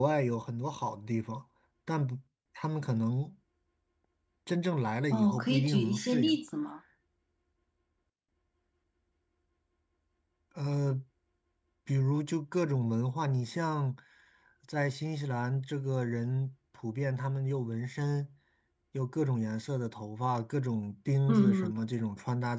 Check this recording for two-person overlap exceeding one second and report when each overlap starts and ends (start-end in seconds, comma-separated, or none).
5.1-6.4